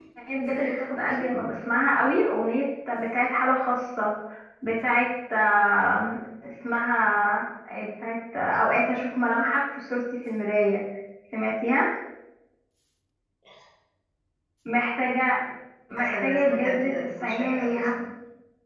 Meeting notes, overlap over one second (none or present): present